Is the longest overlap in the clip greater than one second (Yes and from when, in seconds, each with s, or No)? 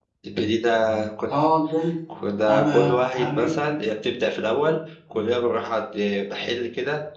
Yes, from 2.5 s